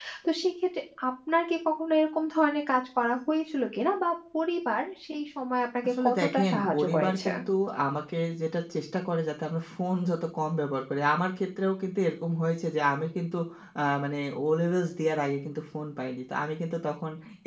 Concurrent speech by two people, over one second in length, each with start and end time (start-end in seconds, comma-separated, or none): 6.0-7.3